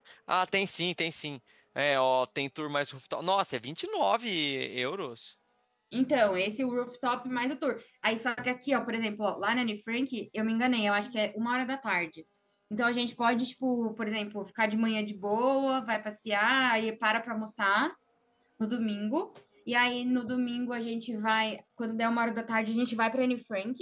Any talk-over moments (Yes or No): No